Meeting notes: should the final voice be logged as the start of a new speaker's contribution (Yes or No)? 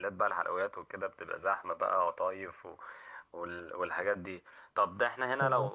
No